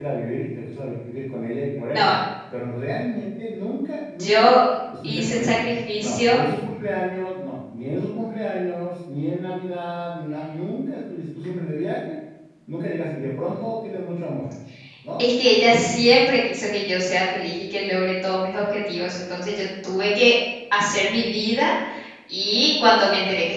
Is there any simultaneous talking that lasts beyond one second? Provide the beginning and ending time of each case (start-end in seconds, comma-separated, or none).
none